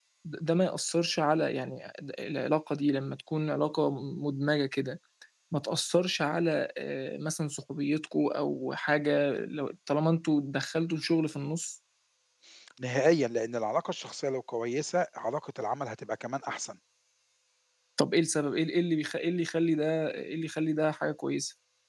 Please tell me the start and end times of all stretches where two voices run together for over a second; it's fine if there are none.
none

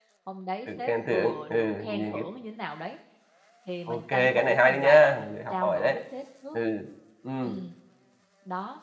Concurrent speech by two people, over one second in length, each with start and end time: 0.7-2.2, 3.9-6.0

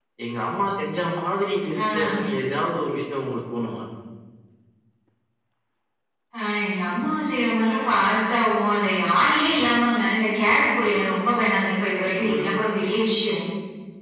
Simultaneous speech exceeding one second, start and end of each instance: none

